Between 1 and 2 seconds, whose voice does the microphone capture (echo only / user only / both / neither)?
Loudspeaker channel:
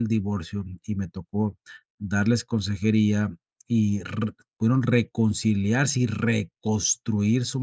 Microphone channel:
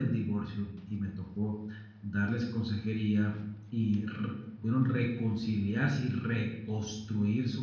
echo only